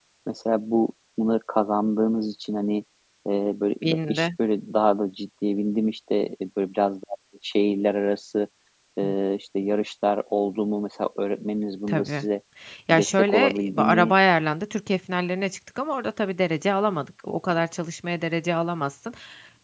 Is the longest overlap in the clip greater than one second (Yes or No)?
Yes